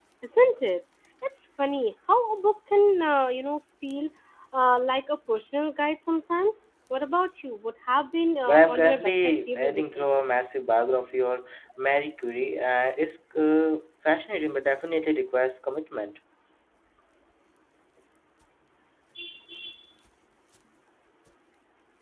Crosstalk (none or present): present